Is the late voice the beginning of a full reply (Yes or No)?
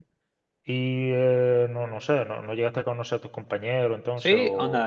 Yes